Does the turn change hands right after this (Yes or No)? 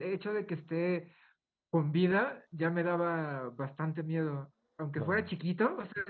No